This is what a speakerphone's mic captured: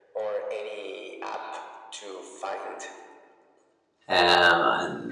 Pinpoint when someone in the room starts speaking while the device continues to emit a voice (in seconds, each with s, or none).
4.1 s